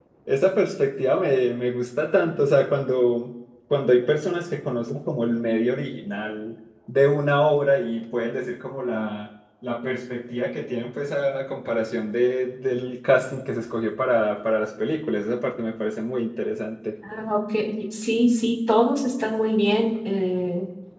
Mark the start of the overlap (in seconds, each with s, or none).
none